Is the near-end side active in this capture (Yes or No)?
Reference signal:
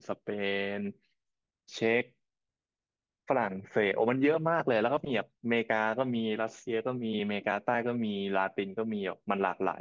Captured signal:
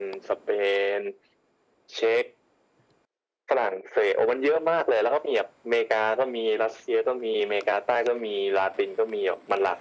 No